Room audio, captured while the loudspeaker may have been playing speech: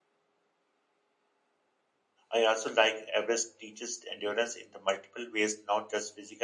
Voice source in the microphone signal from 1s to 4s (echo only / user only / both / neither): user only